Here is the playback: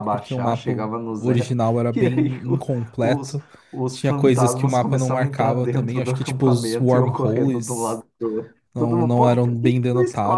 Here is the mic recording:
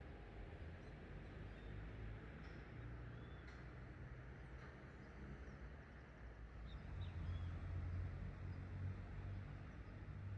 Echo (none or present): none